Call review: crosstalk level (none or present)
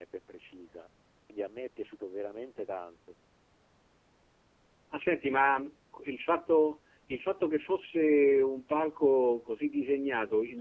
none